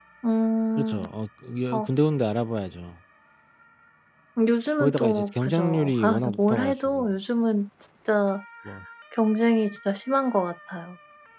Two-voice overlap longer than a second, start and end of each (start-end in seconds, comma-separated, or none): 4.8-7.1